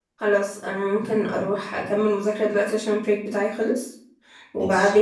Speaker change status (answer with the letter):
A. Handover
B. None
B